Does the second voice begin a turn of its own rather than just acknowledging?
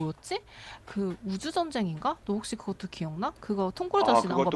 Yes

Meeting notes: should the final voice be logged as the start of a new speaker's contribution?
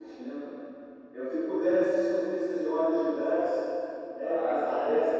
Yes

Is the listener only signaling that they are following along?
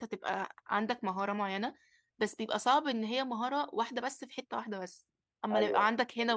No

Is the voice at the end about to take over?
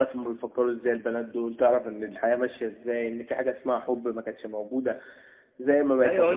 Yes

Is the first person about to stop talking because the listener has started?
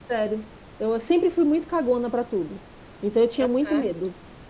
No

